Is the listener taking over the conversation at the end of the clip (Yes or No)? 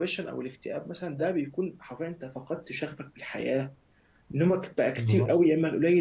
No